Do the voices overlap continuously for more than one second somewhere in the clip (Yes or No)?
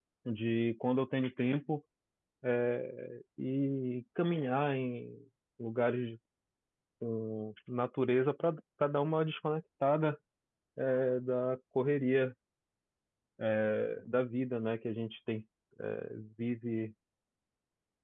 No